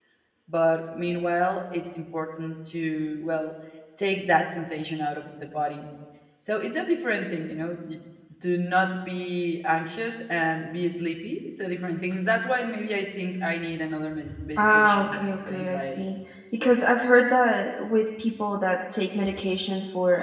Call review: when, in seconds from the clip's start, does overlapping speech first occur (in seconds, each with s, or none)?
14.6 s